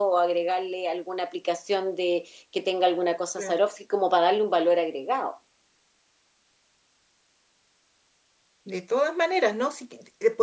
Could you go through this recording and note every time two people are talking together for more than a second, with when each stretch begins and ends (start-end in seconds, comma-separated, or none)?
none